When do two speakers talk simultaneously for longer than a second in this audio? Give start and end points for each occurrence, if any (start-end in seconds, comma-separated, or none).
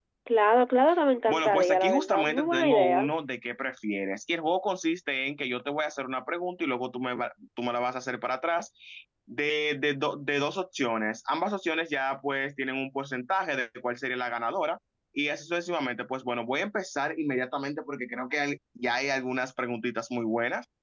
1.3-3.1